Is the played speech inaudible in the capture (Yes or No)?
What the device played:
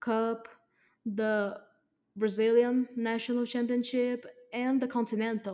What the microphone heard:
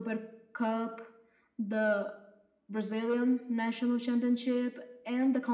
No